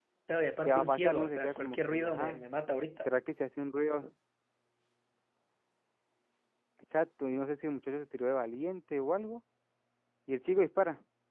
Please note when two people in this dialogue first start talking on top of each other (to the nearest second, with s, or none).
1 s